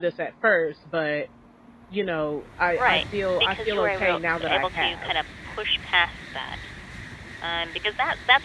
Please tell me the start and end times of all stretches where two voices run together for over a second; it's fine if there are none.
2.8-5.1

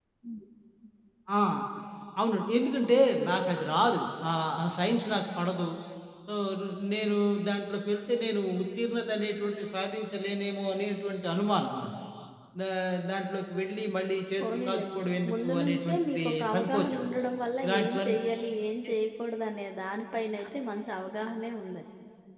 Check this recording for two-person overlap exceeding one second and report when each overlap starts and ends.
14.4-17.0

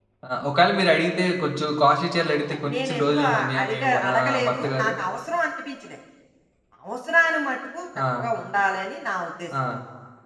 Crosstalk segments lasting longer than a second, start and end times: 2.6-4.9

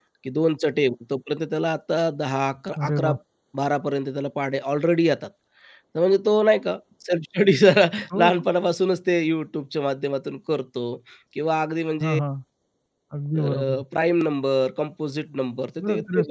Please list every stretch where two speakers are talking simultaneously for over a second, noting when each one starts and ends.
none

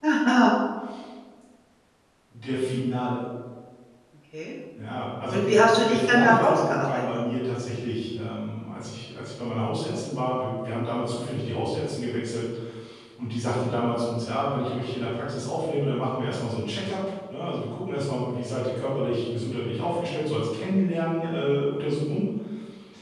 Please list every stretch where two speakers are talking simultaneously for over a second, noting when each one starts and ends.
5.3-7.0

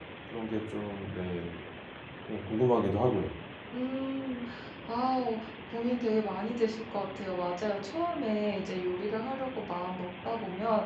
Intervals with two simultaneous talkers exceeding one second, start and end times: none

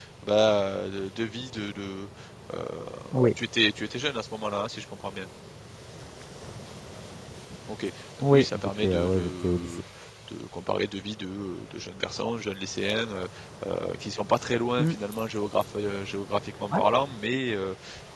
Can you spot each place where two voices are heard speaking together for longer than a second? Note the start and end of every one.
8.3-9.7

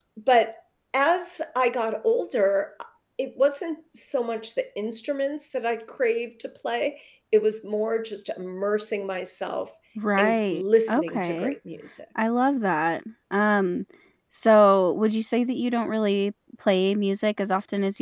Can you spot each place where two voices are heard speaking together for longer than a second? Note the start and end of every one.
10.2-11.5

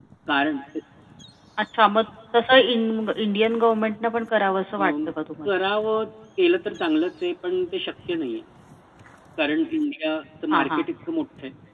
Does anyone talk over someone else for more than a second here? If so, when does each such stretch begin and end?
none

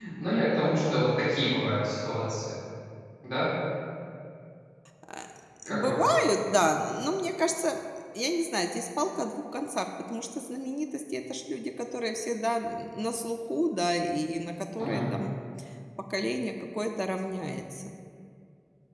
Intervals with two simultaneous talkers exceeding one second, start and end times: none

